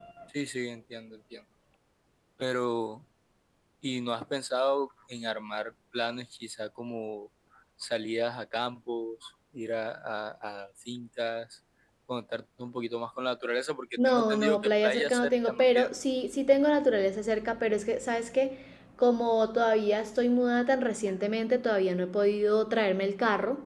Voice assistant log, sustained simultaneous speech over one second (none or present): present